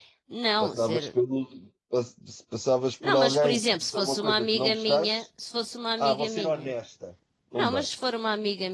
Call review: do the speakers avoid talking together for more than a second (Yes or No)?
No